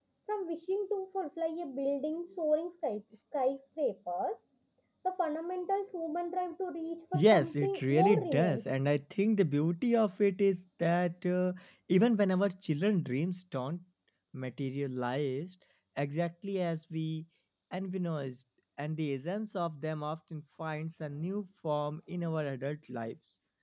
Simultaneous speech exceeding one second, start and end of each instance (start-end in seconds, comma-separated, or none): 7.1-8.6